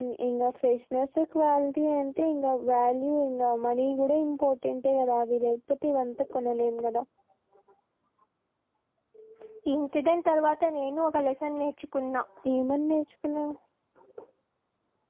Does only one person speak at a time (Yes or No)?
Yes